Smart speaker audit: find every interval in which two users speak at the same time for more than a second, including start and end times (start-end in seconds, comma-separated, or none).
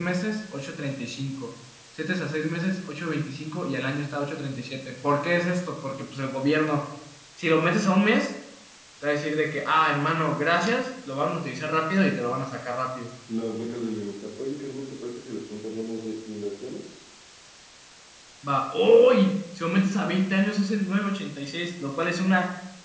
none